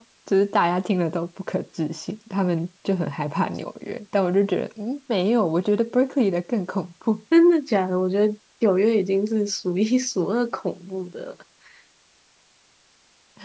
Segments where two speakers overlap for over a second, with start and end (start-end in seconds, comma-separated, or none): none